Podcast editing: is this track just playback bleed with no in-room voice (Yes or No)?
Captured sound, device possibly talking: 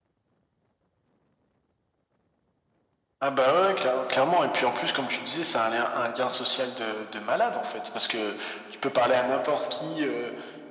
Yes